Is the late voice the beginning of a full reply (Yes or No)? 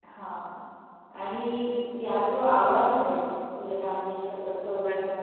No